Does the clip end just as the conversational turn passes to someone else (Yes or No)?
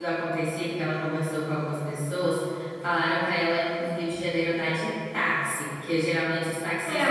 Yes